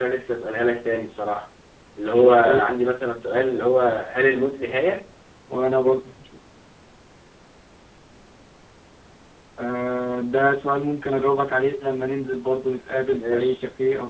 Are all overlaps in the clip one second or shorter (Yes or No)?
Yes